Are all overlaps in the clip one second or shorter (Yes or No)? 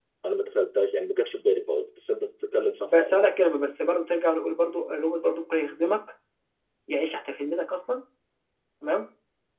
Yes